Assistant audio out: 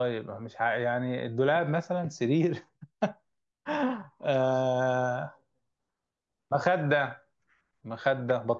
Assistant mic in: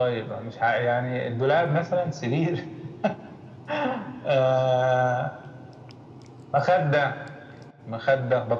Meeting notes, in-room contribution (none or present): none